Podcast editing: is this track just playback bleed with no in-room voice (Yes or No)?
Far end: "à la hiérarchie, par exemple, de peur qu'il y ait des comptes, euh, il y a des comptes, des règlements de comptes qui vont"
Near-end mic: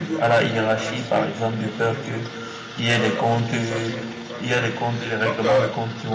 No